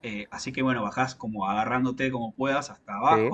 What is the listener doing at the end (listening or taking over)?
listening